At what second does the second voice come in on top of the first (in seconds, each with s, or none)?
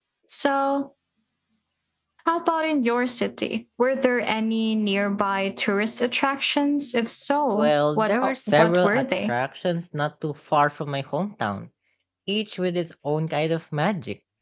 7.5 s